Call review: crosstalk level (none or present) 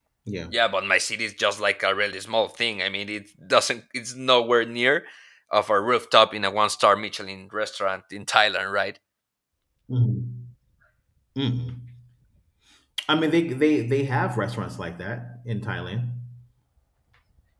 none